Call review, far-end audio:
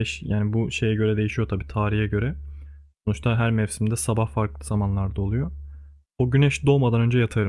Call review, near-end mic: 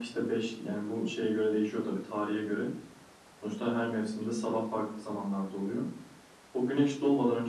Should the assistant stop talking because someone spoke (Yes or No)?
No